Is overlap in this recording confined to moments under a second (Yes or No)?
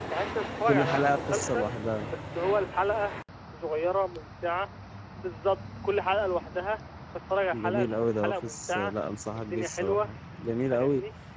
No